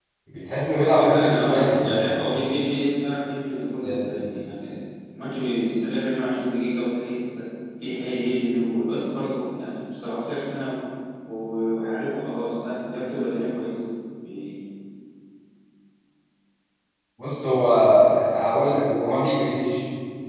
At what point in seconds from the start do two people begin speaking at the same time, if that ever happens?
0.8 s

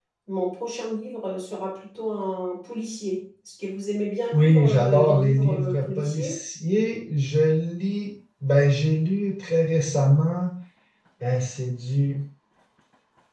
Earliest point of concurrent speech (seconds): 4.3 s

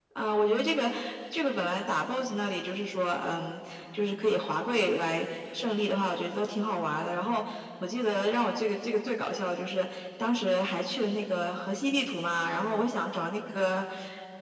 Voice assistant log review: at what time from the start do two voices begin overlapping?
none

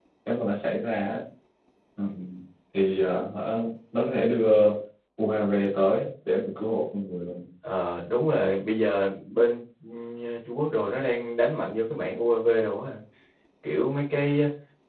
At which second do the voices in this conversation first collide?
none

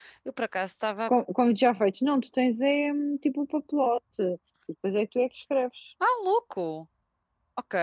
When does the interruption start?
none

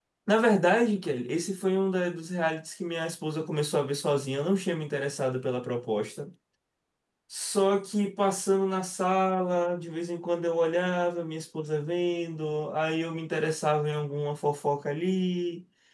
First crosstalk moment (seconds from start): none

